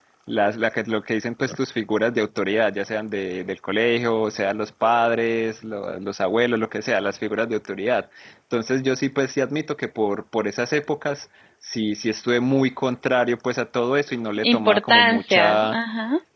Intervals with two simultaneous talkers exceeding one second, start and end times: 14.4-15.8

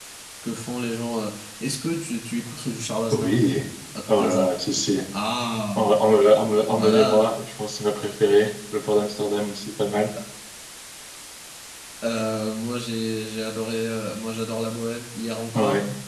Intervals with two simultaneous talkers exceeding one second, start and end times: none

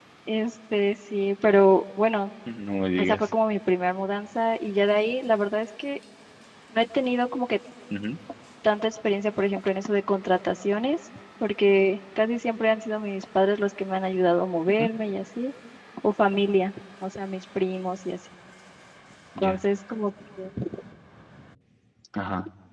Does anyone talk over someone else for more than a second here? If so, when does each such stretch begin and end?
none

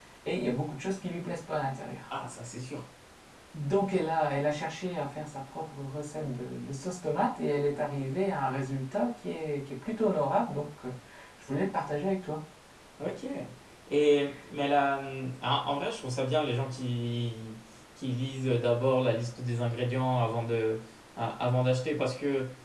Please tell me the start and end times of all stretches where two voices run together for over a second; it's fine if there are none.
none

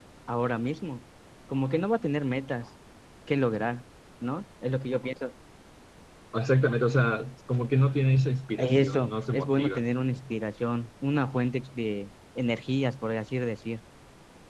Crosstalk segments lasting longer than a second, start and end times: 8.6-9.8

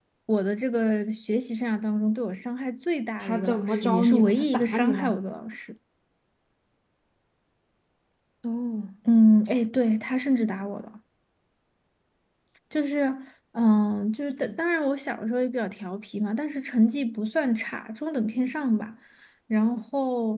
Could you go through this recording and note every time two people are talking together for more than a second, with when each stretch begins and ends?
3.2-5.2

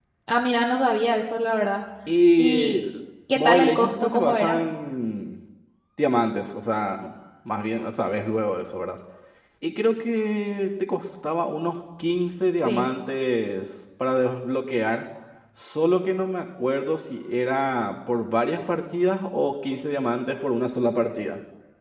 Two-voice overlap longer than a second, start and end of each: 3.4-4.6

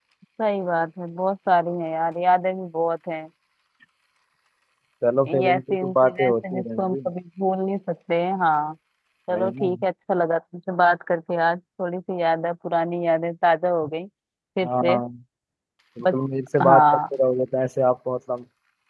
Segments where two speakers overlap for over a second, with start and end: 5.3-7.0

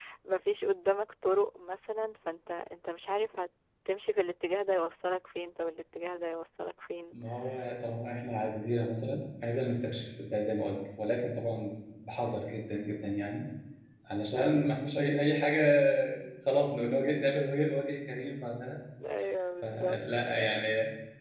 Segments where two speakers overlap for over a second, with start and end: none

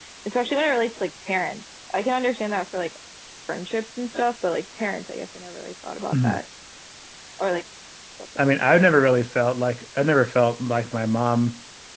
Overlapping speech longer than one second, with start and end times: none

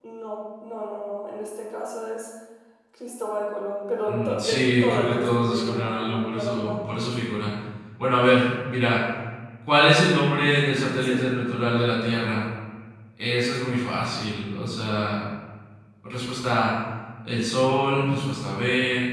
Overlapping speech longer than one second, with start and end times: 4.1-6.8

